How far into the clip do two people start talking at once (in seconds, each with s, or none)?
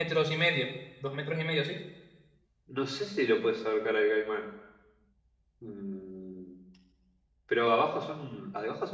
none